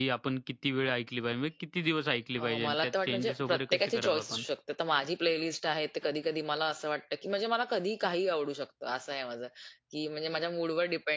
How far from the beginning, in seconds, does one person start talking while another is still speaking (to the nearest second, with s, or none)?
2 s